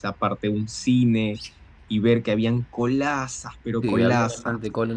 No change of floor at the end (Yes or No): No